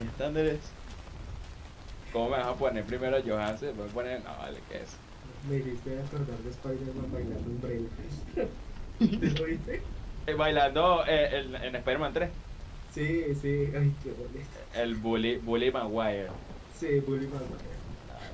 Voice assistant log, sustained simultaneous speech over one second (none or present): none